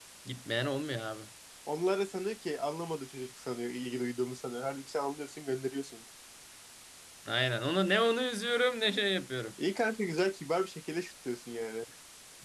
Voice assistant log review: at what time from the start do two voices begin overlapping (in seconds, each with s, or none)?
none